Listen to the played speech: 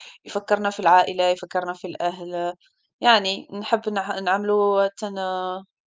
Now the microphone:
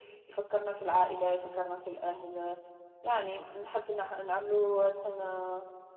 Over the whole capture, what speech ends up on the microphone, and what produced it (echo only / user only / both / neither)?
echo only